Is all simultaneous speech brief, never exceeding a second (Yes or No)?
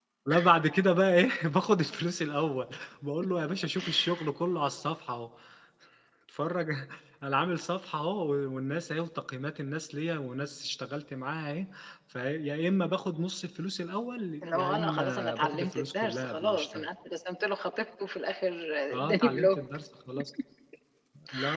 No